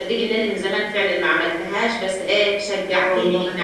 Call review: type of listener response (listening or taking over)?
listening